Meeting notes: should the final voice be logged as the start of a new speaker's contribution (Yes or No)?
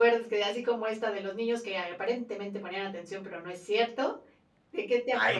Yes